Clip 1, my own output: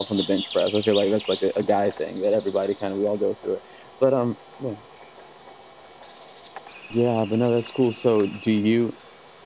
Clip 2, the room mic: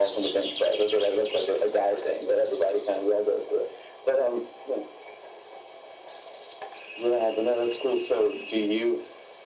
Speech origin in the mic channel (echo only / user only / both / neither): echo only